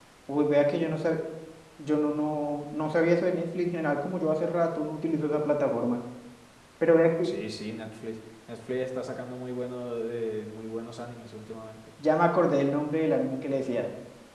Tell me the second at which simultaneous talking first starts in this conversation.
none

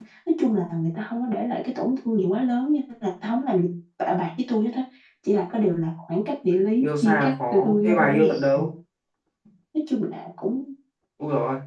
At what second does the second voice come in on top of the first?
6.8 s

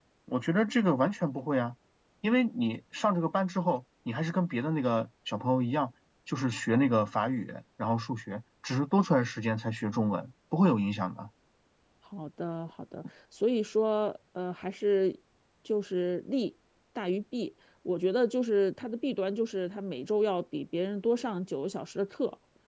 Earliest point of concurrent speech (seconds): none

